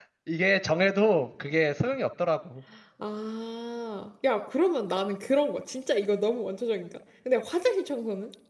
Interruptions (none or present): none